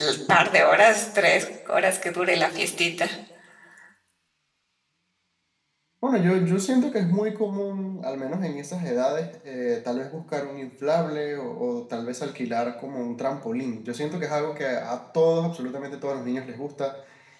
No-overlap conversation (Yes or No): Yes